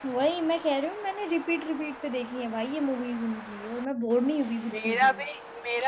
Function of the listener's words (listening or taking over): taking over